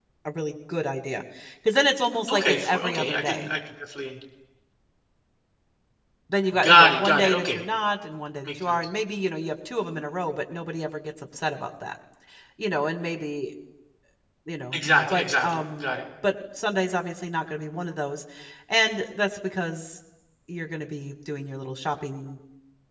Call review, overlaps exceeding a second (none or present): present